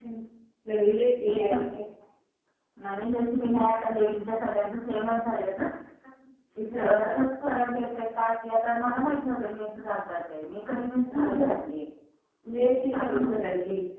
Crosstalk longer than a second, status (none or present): none